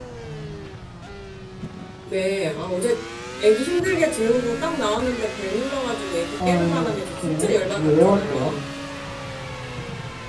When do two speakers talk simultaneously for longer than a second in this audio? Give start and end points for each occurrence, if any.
6.4-8.6

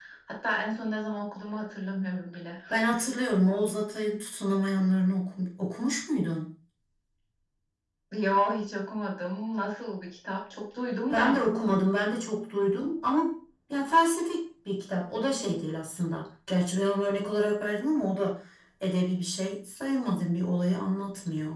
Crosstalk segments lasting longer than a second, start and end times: none

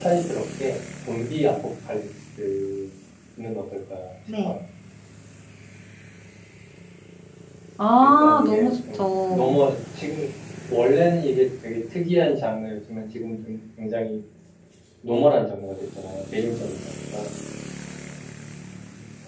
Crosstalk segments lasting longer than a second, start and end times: 8.0-9.6

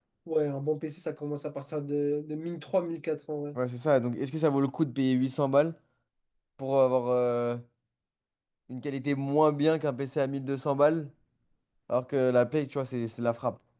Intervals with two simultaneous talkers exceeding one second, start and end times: none

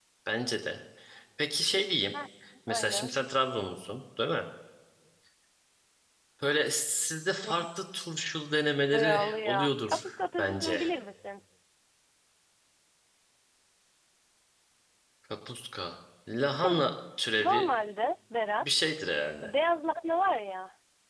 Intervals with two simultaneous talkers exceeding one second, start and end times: 8.9-10.8

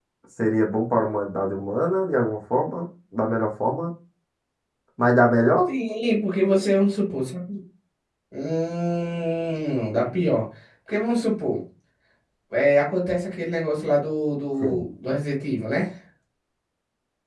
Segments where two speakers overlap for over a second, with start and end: none

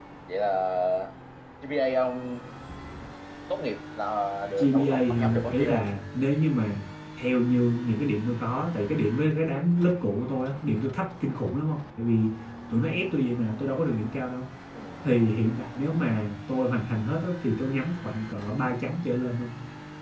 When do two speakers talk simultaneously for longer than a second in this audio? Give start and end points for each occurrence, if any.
4.6-5.9

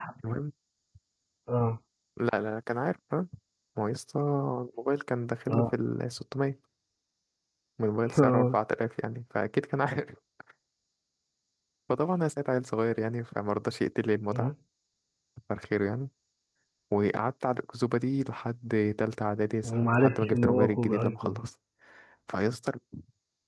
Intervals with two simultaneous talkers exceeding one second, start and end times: 19.6-21.4

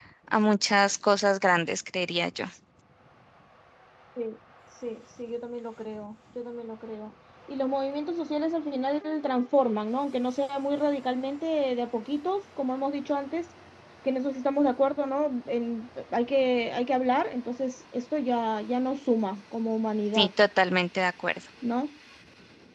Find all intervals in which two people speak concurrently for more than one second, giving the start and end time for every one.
none

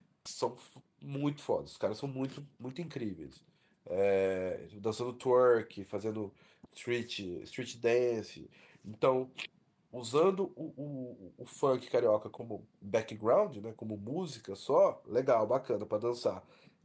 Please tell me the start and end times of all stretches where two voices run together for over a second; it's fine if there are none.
none

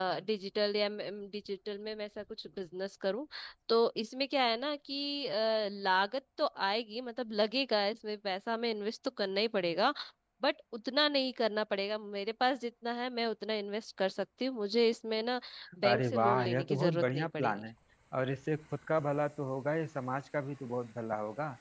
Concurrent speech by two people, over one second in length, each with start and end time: 15.9-17.6

